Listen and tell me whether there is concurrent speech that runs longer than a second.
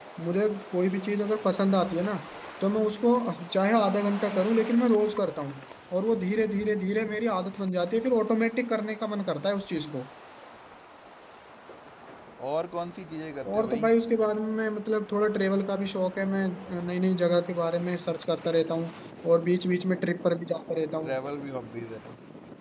No

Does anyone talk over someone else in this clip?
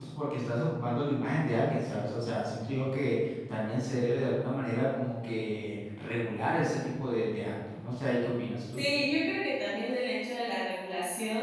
No

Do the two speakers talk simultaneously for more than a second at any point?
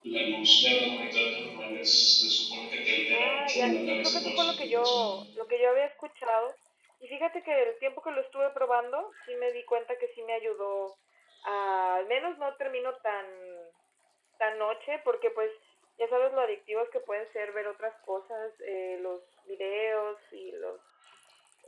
Yes, from 3.1 s

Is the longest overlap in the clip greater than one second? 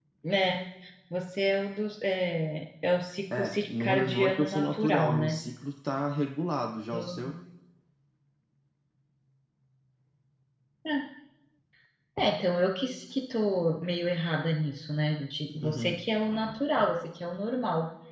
Yes, from 3.3 s

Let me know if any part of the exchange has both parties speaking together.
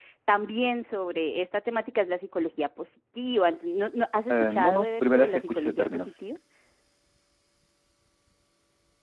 Yes, from 4.3 s

